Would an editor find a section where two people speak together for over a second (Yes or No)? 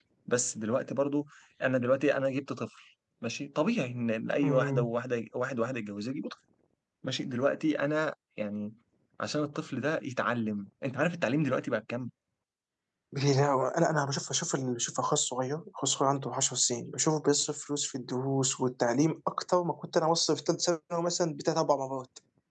No